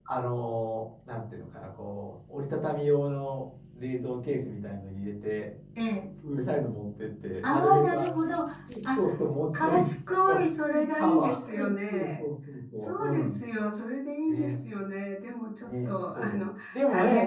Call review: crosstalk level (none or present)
present